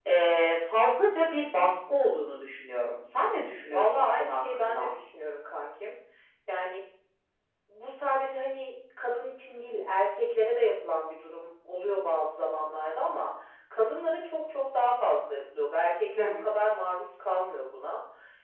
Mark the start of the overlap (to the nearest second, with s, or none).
4 s